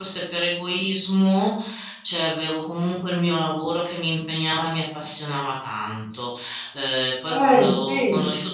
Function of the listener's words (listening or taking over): listening